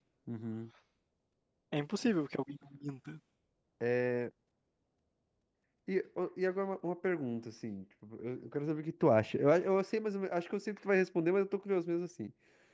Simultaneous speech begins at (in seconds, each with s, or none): none